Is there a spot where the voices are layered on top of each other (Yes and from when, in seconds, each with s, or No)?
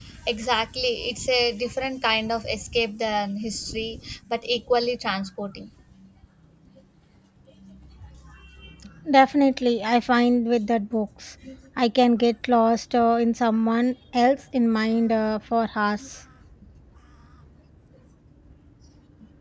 No